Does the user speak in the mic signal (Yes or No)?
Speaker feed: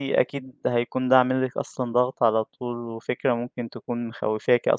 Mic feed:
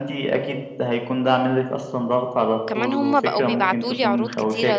Yes